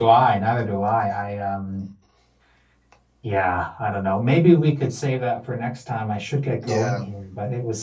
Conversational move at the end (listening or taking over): listening